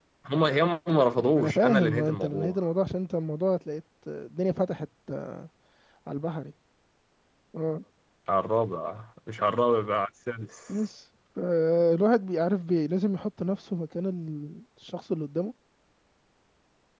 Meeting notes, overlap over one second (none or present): present